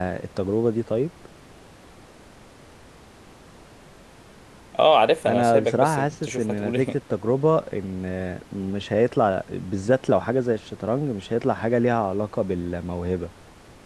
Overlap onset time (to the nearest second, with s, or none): 5 s